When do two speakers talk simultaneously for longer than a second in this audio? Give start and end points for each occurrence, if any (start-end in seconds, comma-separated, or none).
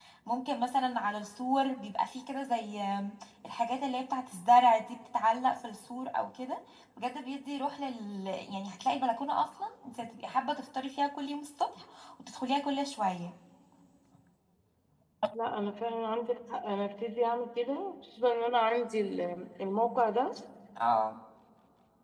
none